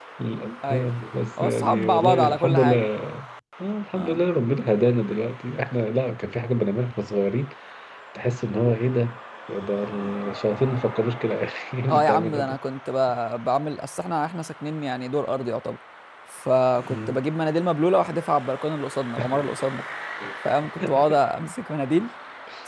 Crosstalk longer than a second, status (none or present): present